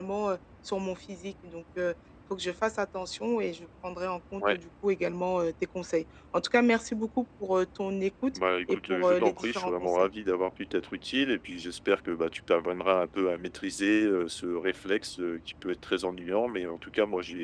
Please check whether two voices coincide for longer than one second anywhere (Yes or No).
Yes